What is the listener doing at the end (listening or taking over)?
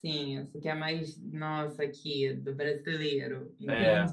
taking over